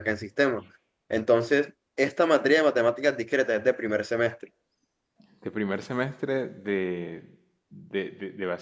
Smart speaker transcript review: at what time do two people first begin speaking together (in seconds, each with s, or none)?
none